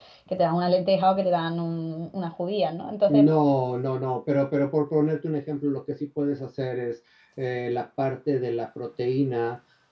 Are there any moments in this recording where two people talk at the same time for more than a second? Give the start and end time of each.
none

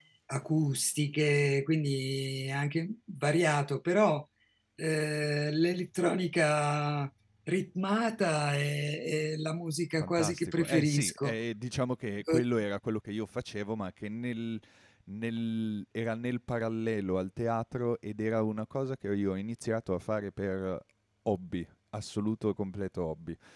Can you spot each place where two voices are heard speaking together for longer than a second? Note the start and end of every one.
10.0-11.3

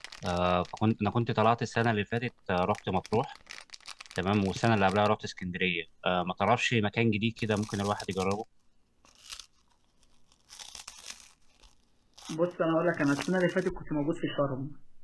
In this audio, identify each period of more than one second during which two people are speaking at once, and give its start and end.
none

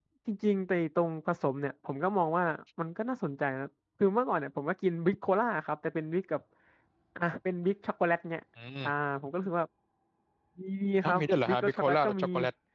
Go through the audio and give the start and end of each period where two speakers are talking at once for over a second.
11.0-12.2

